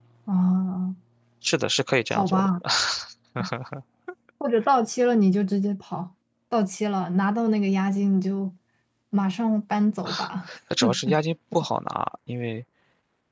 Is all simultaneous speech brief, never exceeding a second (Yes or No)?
Yes